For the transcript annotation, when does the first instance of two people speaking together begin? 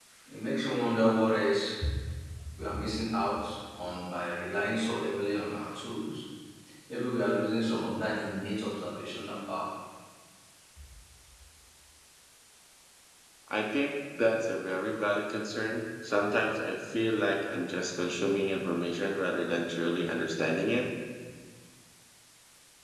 none

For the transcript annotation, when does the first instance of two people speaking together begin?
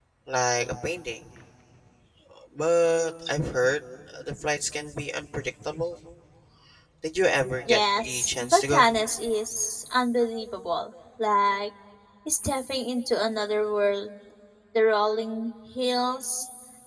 8 s

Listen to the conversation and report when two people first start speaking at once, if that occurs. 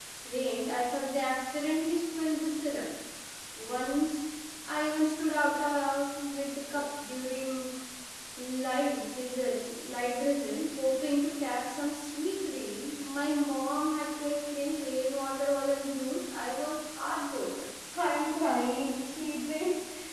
none

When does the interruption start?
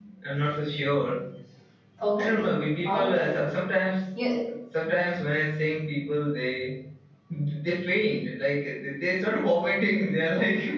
2 s

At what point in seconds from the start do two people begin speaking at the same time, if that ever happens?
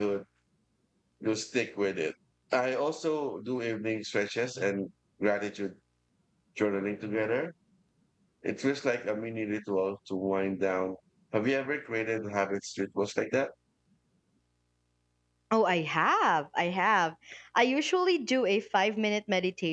none

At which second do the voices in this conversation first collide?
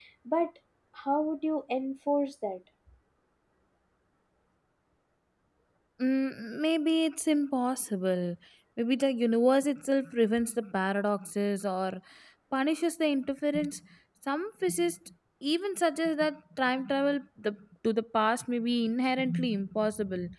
none

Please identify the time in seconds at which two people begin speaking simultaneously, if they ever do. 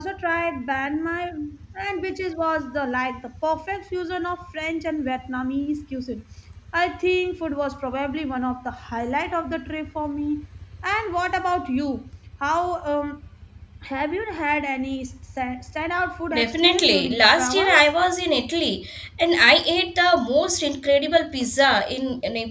16 s

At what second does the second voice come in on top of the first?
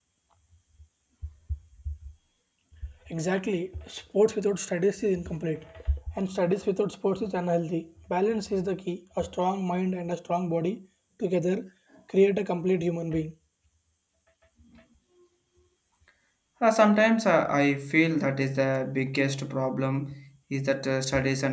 none

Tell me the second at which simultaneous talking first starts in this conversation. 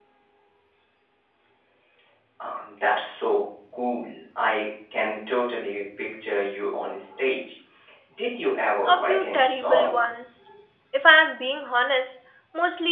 9 s

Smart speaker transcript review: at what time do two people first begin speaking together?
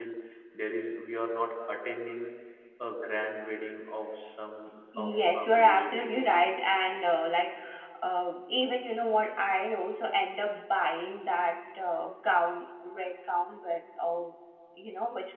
5 s

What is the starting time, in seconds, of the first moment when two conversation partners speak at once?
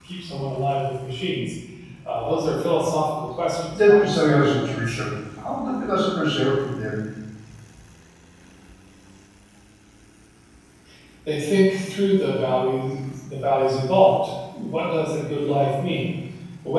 4 s

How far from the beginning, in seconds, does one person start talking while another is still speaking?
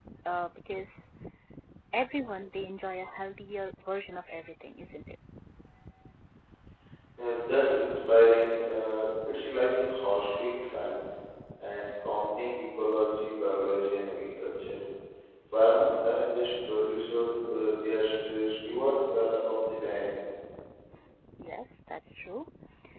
none

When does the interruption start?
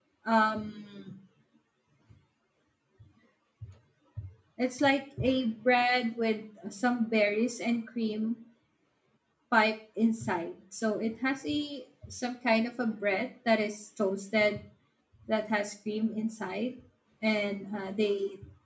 none

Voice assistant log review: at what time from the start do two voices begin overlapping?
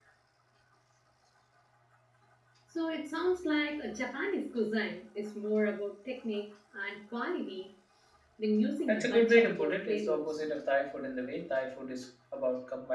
9 s

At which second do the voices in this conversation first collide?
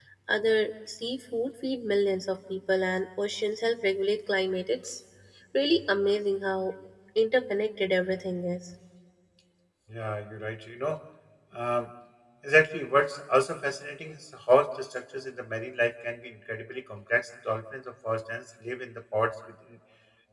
none

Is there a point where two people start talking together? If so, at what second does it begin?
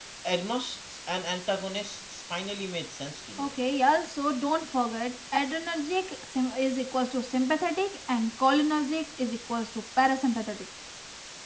none

